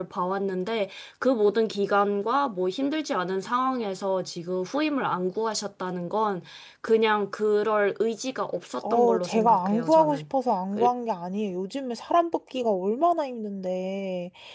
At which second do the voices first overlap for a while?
9 s

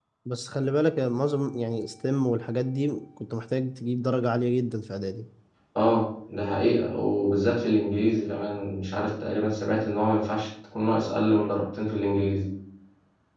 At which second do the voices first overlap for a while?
none

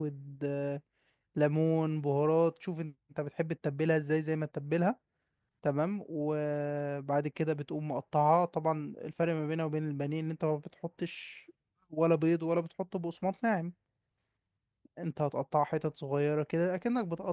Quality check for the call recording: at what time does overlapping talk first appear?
none

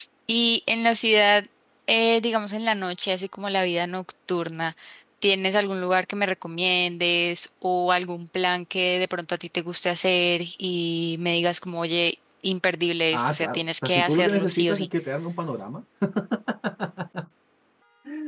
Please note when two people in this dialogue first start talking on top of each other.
13 s

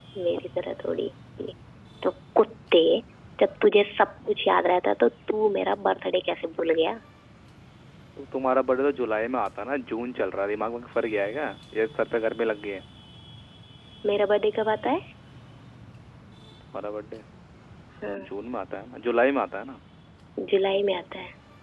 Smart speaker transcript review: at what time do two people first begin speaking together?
none

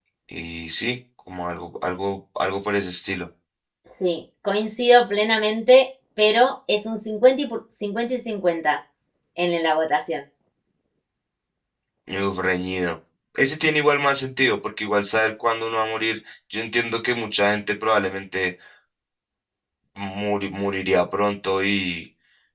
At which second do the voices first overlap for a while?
none

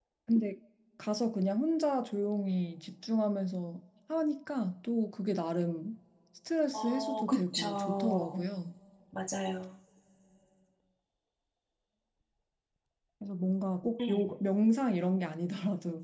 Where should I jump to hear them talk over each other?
7 s

